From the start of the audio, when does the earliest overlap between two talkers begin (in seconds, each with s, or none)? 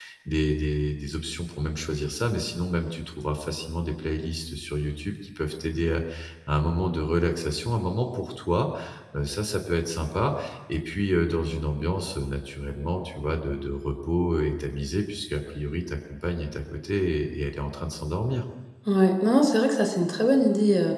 none